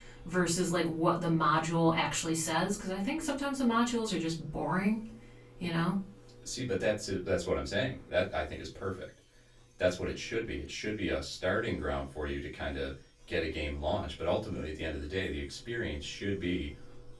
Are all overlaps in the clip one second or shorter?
Yes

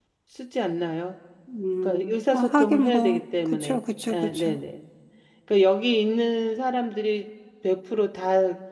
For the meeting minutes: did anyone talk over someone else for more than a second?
Yes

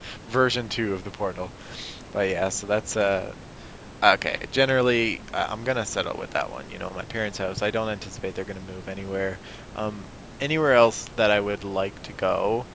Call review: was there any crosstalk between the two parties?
No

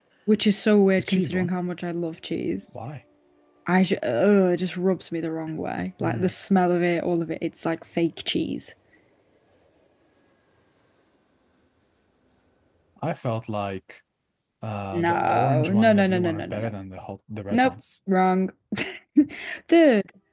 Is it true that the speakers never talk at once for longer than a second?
No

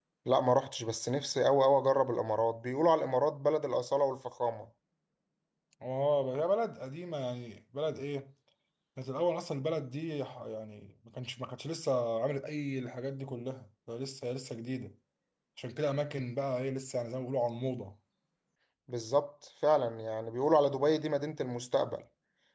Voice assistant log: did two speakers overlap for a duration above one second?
No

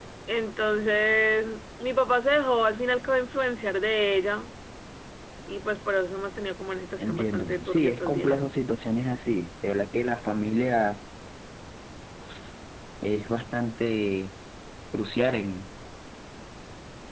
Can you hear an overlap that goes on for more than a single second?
Yes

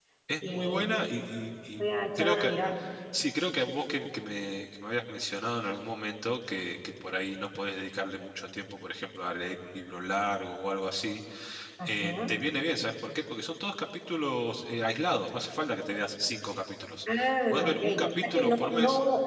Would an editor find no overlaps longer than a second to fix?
No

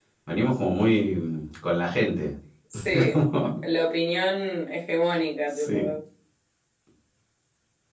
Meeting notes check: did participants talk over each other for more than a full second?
No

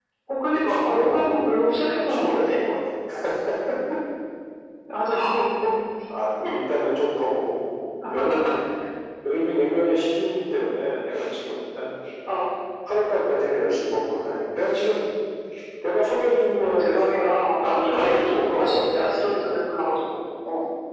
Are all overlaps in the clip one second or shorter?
No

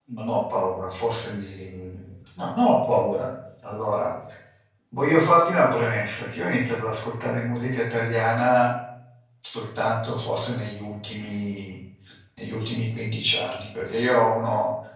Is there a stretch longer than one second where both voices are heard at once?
No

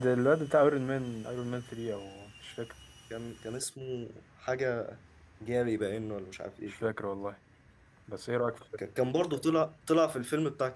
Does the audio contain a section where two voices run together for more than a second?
No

